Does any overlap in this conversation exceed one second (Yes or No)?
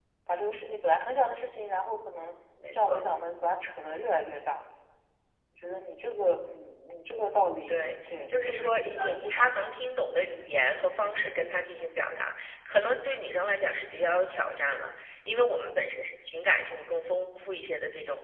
Yes